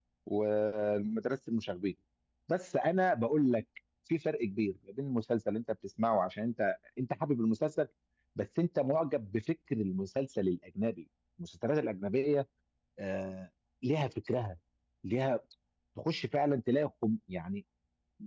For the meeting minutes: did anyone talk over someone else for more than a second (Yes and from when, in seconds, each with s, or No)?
No